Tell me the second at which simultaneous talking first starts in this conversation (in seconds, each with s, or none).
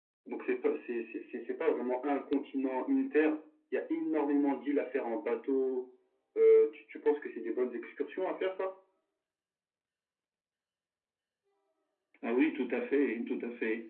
none